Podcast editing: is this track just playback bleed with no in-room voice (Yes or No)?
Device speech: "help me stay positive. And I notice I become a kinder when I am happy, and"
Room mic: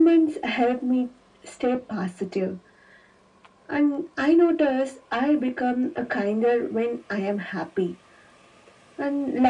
Yes